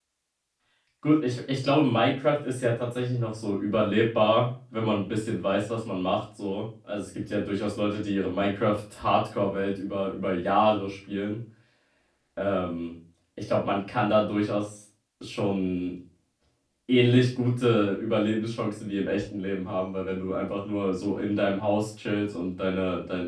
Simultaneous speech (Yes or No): No